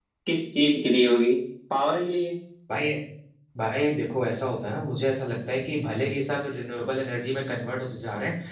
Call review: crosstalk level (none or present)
none